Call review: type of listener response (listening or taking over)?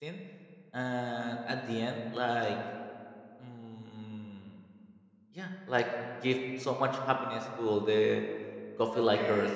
taking over